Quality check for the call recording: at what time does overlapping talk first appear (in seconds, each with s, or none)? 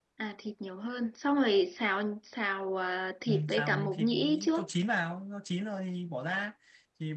3.3 s